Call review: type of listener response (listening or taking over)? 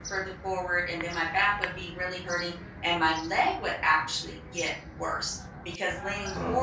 listening